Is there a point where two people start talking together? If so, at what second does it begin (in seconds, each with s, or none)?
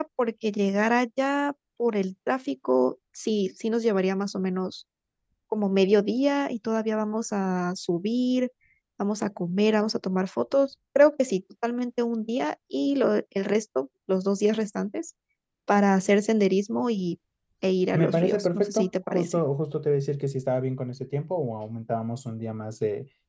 17.9 s